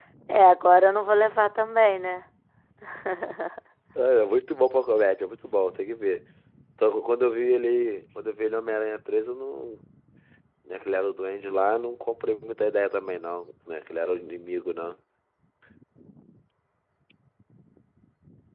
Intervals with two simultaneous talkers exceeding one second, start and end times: none

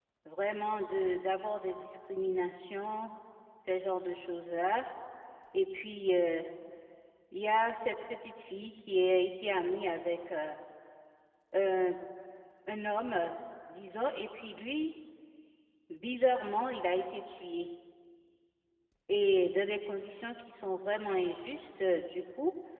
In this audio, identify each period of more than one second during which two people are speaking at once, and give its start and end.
none

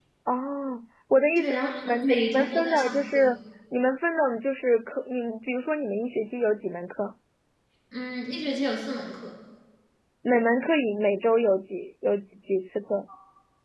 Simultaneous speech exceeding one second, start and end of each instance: 1.4-3.3

